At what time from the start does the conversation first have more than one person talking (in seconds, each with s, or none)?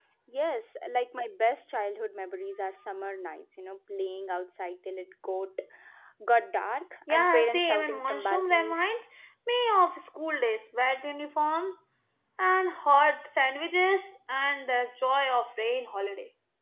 7.1 s